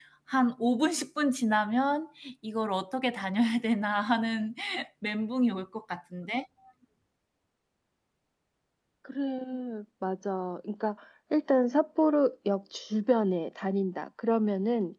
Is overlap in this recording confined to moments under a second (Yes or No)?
Yes